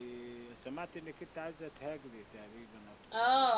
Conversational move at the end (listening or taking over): taking over